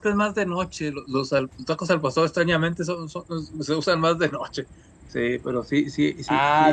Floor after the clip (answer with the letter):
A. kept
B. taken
B